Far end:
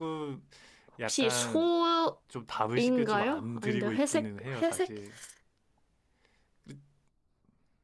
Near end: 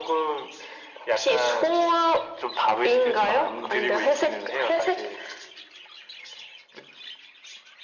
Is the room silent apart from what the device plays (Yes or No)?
Yes